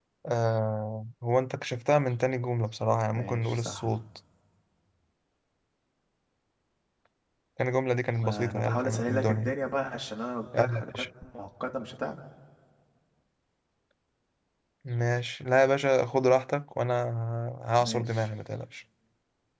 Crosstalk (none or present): present